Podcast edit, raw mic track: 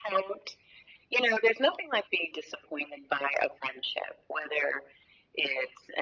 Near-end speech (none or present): none